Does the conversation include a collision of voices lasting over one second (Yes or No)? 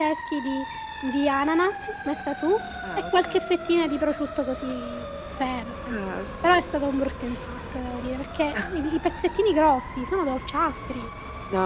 No